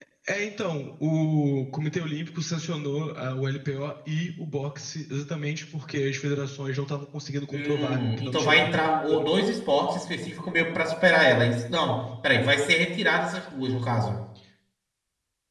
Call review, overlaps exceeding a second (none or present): present